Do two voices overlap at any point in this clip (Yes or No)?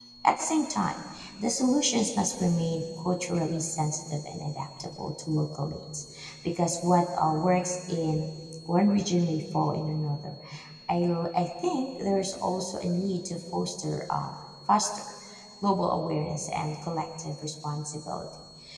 No